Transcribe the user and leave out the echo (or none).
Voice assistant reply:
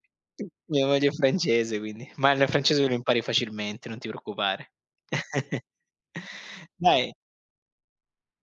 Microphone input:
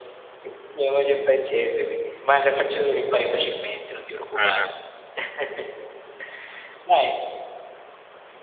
Eh